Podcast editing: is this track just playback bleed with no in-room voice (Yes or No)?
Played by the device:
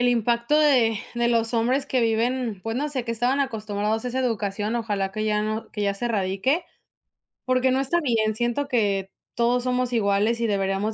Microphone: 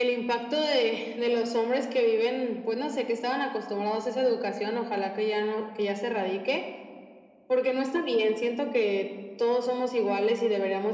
Yes